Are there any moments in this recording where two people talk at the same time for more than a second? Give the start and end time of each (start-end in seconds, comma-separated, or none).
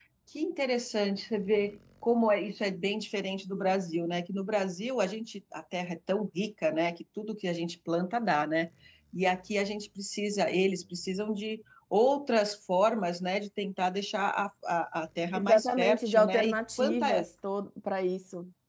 15.4-17.2